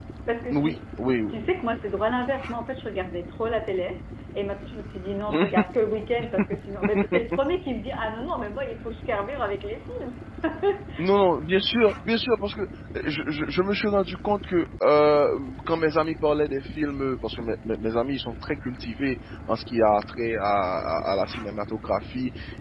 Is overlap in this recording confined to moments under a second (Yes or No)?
Yes